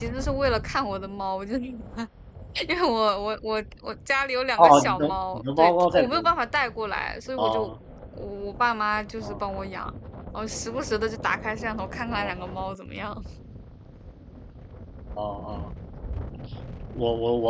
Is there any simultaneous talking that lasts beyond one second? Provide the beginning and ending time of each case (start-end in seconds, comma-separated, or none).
4.6-6.3